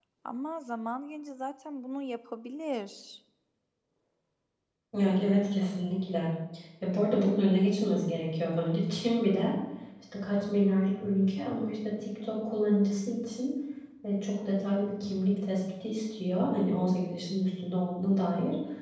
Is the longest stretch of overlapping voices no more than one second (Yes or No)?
Yes